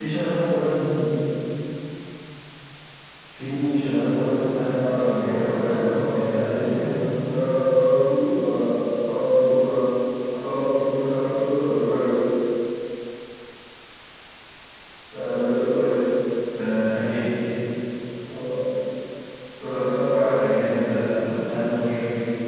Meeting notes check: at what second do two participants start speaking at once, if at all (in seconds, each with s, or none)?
4.9 s